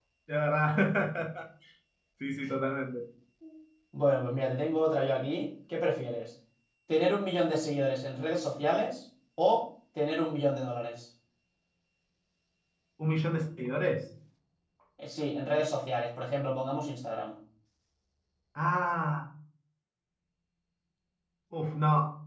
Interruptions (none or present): none